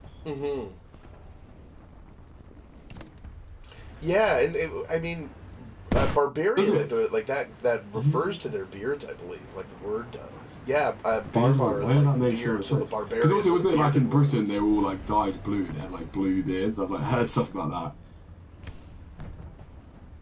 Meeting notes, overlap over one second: present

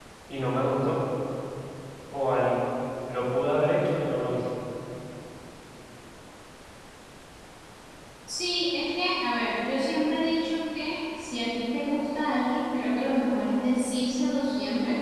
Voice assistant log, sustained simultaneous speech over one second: none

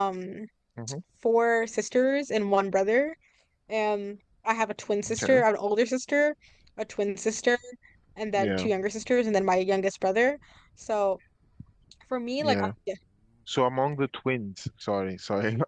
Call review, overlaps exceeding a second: none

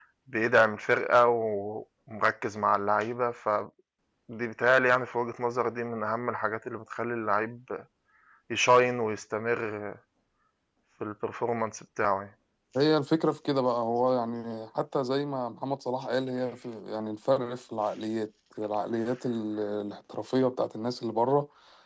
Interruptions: none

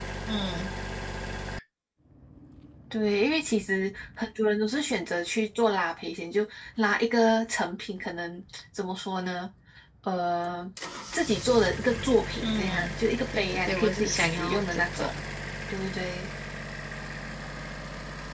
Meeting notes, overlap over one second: present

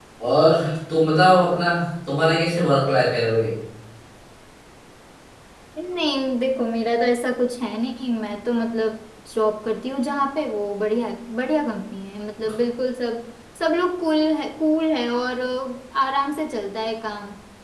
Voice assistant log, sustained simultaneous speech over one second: none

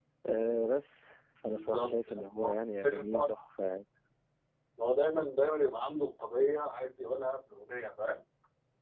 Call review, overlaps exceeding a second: present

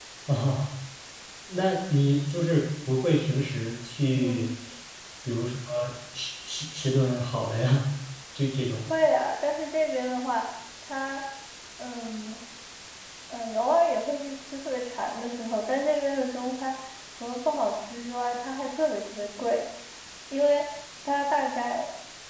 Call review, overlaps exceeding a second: none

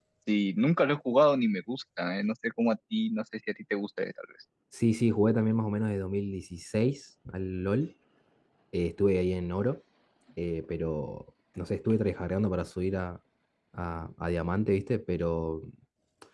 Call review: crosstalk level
none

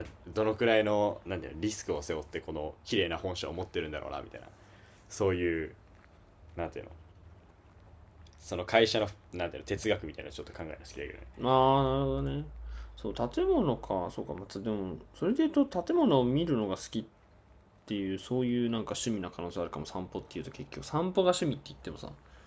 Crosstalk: none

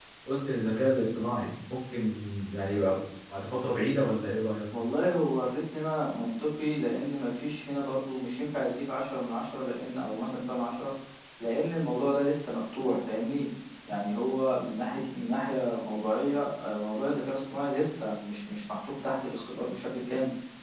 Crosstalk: none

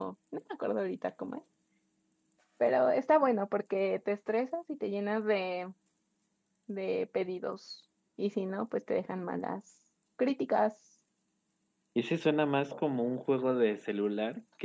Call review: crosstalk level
none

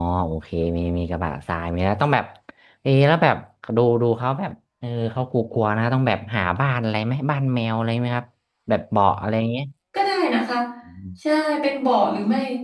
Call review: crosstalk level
none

